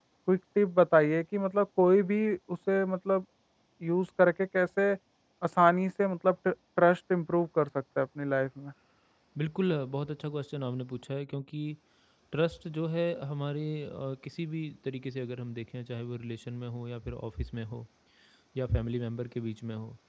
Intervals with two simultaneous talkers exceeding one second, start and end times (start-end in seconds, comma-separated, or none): none